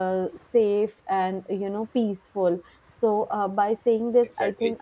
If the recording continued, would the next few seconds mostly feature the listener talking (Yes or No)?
No